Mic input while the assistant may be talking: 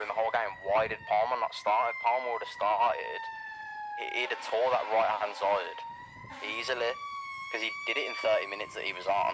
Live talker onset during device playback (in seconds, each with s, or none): none